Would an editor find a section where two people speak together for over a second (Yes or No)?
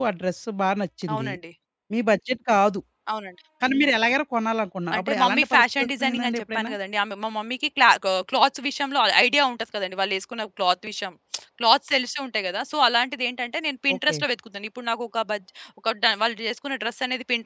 Yes